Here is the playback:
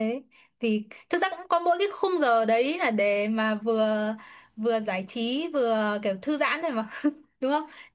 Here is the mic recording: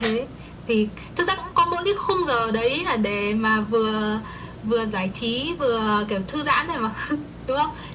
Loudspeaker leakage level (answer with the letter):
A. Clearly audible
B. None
A